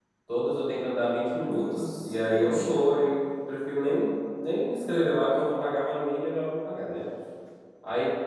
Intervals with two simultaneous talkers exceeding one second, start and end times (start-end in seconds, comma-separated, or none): 1.5-2.9